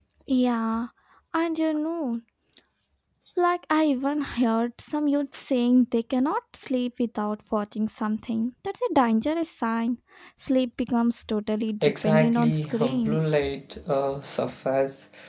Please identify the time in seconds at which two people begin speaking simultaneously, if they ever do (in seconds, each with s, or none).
11.8 s